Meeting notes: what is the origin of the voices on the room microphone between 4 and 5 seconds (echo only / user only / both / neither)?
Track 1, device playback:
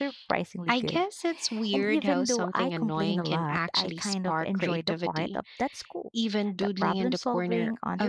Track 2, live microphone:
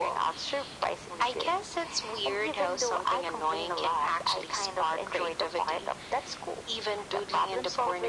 echo only